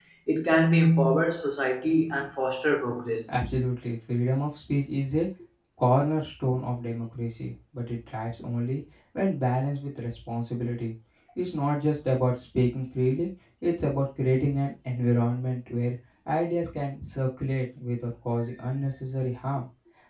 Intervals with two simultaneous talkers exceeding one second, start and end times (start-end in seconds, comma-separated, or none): none